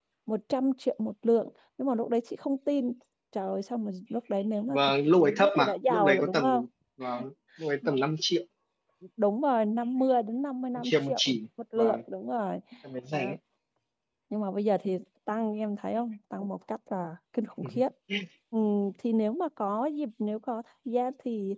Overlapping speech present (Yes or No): Yes